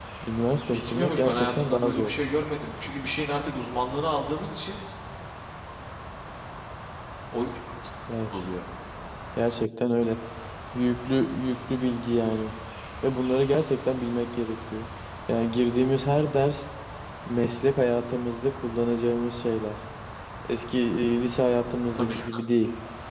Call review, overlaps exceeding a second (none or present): present